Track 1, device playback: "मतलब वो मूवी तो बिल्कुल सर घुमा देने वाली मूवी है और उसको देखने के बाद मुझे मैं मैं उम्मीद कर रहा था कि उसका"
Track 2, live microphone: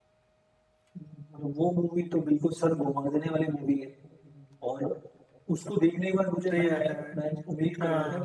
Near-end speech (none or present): present